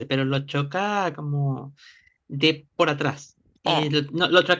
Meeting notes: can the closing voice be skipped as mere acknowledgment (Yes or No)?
Yes